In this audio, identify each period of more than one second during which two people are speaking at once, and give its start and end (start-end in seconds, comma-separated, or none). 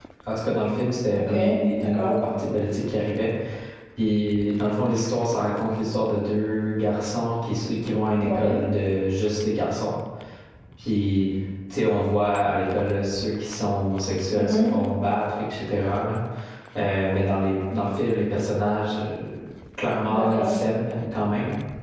none